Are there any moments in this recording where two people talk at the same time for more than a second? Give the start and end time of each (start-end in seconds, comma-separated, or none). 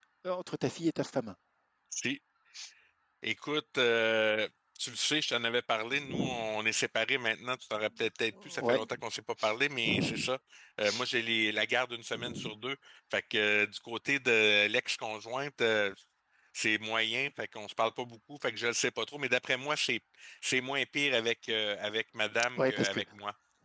none